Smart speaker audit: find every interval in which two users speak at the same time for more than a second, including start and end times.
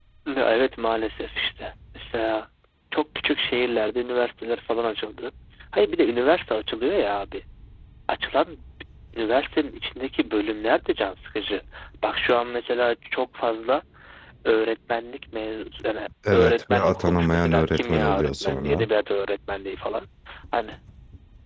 16.3-18.9

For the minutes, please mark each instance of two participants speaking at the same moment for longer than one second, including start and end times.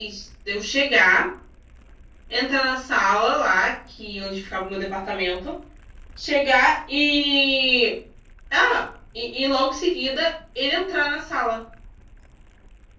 none

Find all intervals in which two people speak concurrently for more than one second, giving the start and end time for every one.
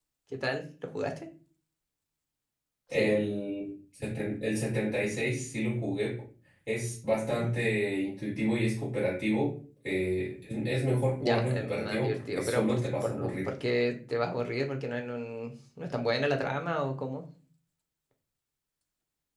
11.2-13.5

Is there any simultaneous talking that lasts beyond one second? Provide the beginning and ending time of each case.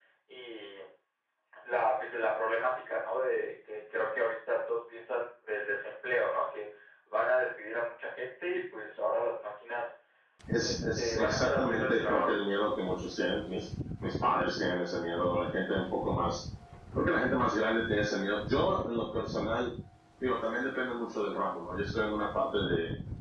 10.6-12.4

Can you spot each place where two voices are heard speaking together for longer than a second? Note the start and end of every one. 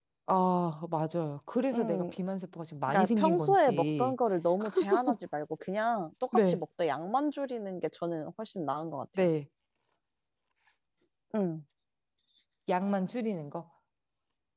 2.9-4.1

